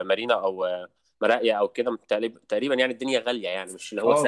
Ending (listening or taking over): taking over